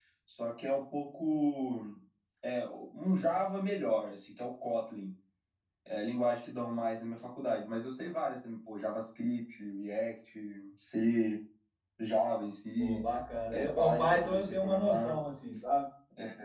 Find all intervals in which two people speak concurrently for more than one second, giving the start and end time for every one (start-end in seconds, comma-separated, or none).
13.5-15.2